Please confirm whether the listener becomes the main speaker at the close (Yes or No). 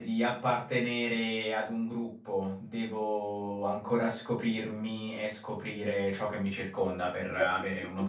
Yes